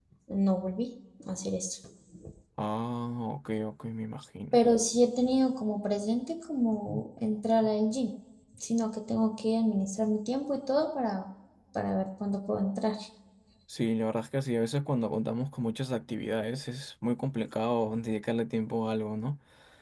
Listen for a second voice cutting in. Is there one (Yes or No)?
No